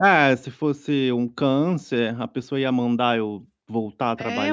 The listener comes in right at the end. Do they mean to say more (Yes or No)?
Yes